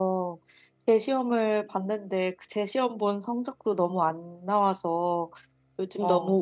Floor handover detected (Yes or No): No